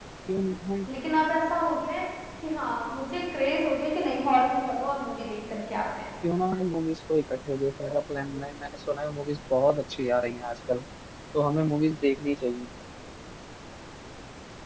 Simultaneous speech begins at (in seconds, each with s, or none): none